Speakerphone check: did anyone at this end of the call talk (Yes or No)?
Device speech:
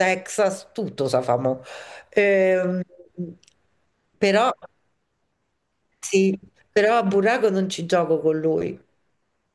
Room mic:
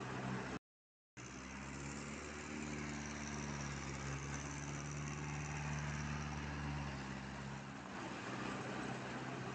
No